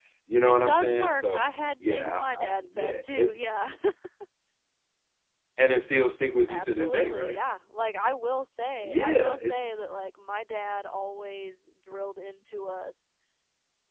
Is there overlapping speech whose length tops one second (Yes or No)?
Yes